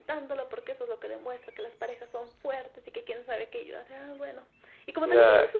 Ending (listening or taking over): listening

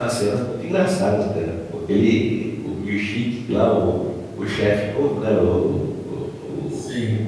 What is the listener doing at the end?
listening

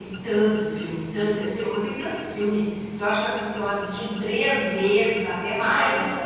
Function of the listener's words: listening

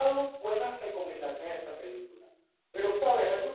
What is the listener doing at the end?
listening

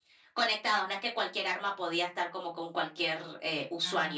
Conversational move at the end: taking over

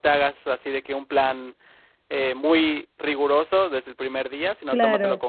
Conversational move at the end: listening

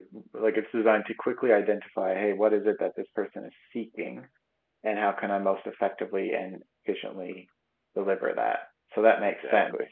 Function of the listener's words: listening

